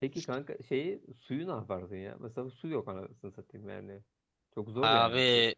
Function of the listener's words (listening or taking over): taking over